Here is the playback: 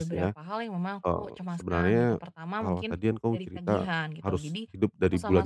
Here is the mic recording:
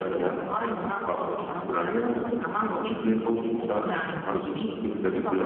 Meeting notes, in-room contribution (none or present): none